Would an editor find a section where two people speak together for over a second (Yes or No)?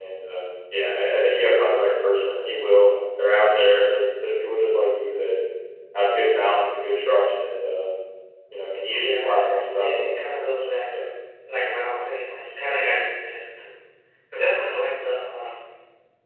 Yes